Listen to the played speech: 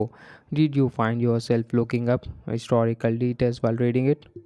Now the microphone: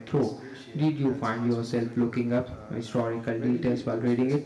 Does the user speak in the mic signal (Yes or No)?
Yes